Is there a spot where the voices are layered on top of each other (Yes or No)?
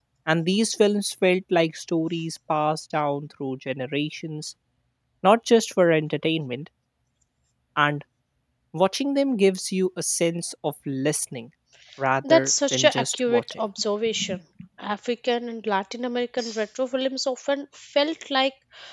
Yes